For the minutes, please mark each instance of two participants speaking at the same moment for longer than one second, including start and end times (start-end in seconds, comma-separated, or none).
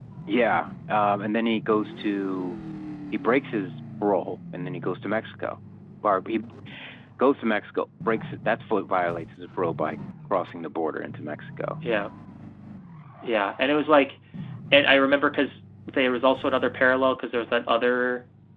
none